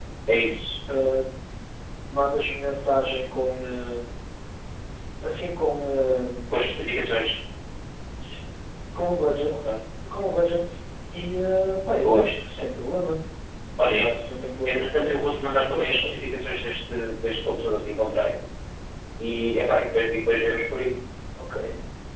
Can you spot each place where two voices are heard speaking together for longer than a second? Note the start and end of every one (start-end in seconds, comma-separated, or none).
14.7-16.1